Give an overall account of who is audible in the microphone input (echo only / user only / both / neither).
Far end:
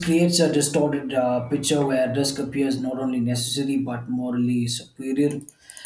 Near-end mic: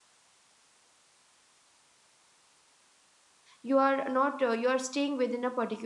user only